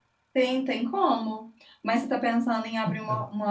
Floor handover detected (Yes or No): No